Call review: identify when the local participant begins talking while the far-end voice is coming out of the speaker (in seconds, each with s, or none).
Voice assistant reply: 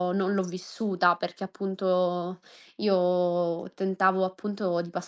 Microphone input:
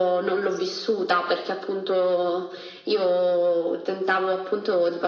none